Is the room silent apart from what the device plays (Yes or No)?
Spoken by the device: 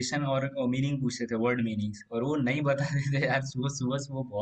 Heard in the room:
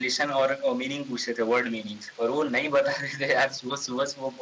Yes